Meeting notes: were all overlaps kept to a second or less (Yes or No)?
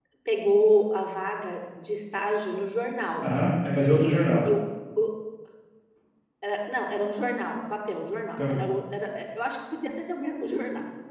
Yes